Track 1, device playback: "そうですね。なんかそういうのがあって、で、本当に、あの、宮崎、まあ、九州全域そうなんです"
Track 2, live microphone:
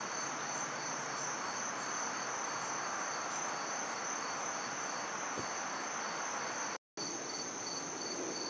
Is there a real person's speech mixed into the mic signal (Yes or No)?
No